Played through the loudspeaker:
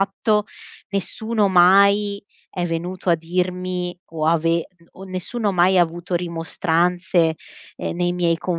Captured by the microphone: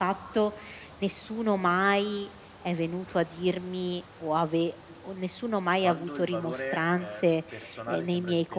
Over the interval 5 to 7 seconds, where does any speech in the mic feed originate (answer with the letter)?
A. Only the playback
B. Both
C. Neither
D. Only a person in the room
B